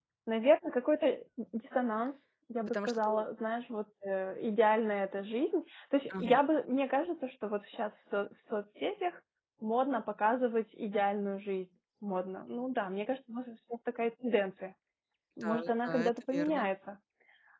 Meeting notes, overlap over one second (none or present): present